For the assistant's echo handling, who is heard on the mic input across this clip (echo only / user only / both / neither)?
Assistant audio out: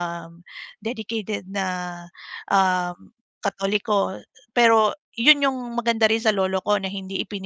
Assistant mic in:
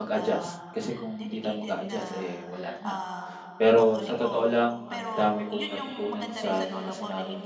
both